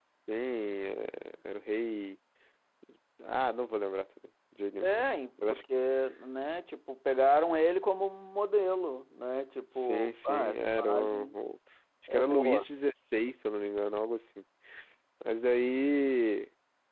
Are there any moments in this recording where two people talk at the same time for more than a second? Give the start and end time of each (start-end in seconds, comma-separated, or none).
9.8-11.3